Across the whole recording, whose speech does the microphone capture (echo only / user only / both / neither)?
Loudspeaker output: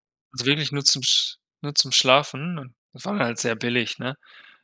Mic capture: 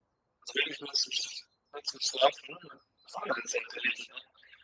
echo only